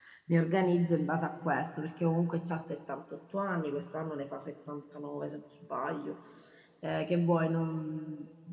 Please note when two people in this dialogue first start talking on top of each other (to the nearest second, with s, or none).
none